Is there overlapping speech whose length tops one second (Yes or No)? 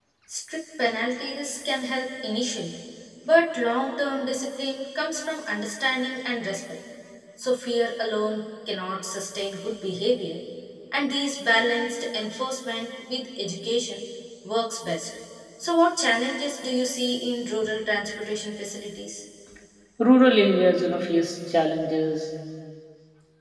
No